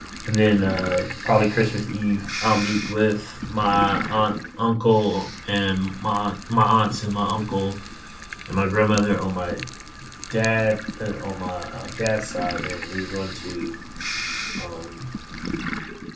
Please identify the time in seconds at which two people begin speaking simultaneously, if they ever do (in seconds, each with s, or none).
none